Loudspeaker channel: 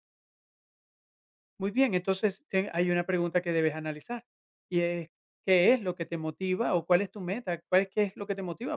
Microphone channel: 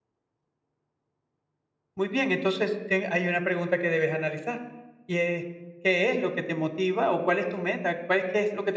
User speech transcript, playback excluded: none

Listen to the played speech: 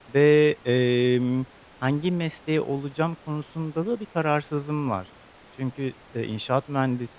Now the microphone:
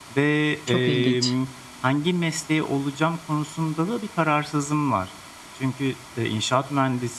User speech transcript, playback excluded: Çok ilginç.

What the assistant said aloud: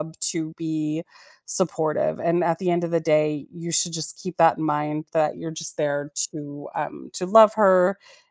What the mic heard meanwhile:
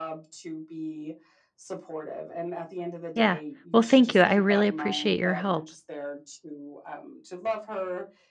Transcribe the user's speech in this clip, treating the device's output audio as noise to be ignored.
Yeah. Well, thank you. I really appreciate your help.

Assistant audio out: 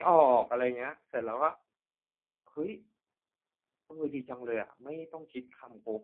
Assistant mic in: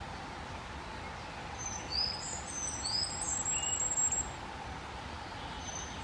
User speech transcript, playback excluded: none

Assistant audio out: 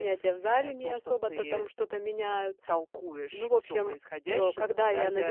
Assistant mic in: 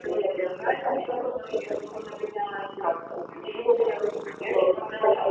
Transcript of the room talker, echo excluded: none

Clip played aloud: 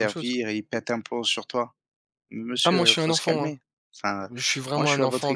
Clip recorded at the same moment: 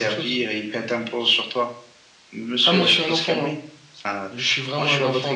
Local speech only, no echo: none

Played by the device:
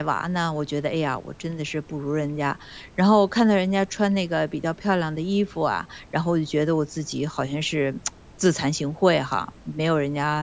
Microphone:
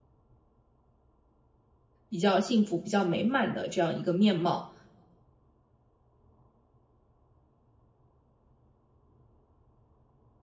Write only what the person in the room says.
比较幸福、比较美满的这样一个面貌。

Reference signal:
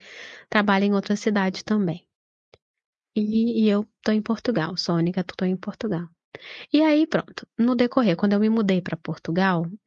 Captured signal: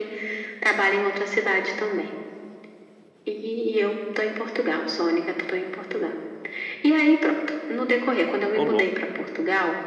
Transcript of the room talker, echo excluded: Ô louco,

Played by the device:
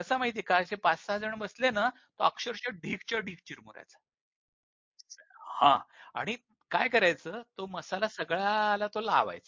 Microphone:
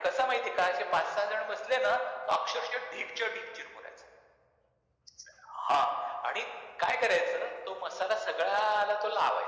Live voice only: none

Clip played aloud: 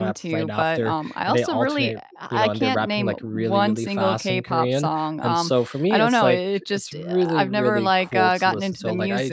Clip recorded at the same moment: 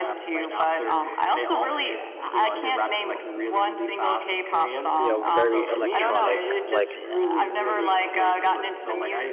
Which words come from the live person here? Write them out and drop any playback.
you know very electronic, like

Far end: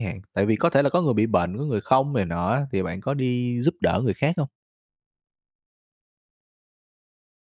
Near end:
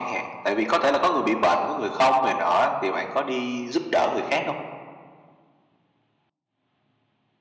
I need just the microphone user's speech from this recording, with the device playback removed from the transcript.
none

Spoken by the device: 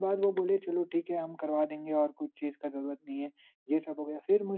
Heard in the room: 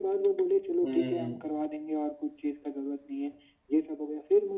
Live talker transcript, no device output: हुँ।

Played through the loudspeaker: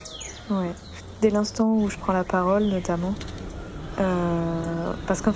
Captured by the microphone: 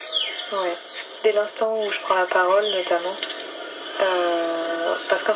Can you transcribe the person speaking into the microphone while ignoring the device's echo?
none

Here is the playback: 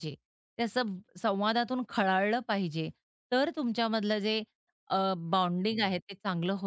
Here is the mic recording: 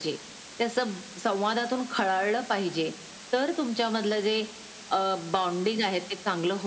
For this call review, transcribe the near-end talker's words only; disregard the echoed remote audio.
none

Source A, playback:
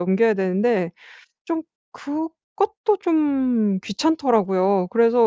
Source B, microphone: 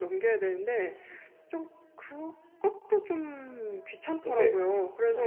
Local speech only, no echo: 네.

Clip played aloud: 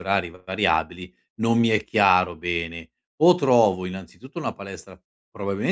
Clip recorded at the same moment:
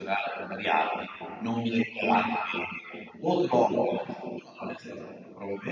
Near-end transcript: none

